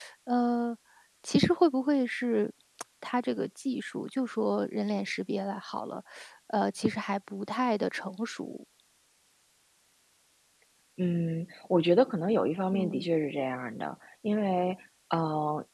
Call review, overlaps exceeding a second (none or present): none